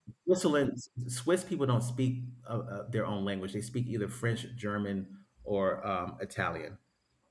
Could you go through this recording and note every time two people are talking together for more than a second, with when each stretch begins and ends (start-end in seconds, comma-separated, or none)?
none